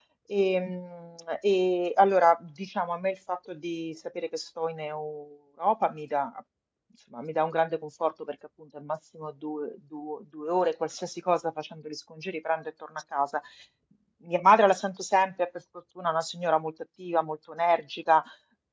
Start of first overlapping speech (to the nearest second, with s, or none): none